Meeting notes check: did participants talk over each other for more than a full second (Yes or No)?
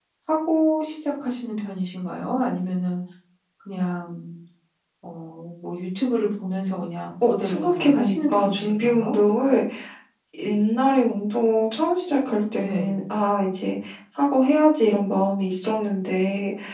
Yes